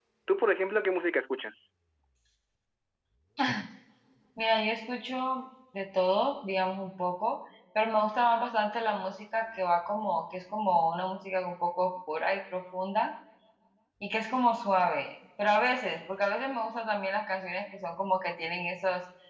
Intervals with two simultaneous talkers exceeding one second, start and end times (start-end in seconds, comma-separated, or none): none